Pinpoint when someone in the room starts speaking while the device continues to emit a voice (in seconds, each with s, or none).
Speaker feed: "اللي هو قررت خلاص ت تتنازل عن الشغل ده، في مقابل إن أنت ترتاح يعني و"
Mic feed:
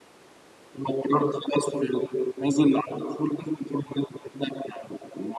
none